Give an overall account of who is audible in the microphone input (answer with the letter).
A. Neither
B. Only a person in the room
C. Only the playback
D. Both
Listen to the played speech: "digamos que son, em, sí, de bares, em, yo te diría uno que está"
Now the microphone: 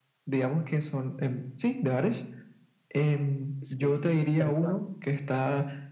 D